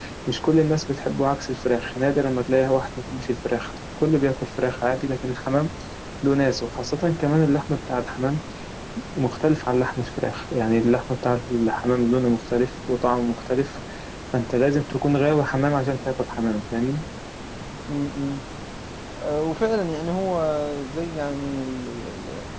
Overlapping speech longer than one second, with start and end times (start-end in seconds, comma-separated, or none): none